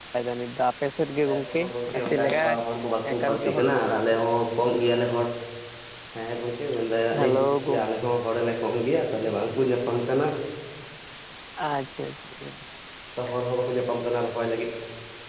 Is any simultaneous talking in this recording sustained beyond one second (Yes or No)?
Yes